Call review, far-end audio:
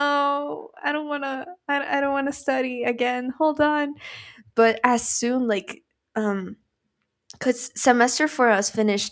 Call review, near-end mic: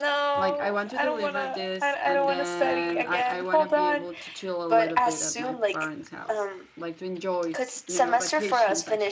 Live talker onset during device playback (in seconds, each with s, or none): 0.3 s